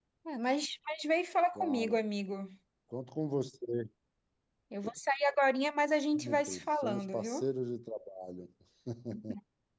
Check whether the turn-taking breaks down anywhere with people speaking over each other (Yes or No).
Yes